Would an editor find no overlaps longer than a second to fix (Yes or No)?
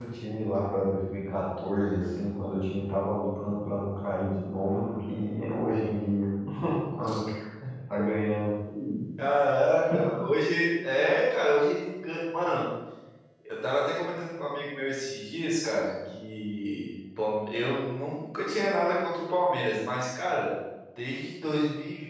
Yes